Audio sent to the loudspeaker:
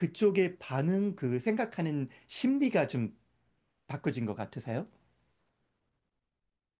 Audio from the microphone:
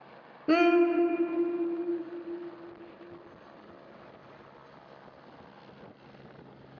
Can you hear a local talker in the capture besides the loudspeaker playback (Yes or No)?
Yes